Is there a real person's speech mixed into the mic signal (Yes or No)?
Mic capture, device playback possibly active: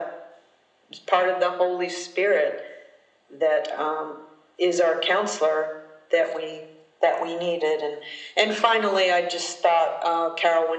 No